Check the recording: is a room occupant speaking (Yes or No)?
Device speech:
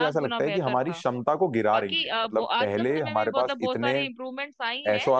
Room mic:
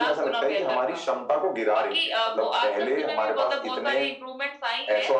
No